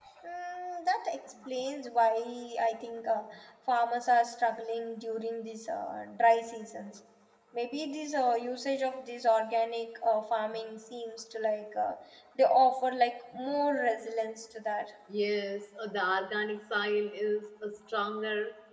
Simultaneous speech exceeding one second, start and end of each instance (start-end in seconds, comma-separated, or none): none